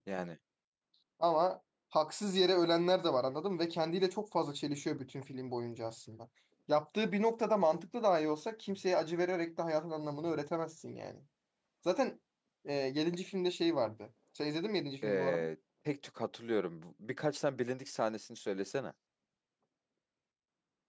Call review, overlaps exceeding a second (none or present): none